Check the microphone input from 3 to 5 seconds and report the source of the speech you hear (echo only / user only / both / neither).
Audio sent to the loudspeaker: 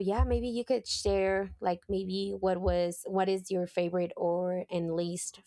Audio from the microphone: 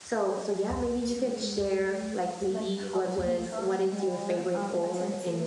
both